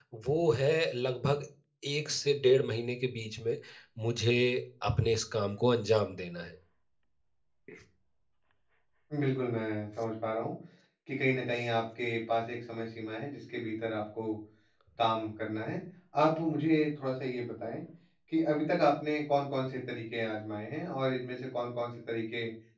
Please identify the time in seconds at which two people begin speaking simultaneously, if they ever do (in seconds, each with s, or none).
none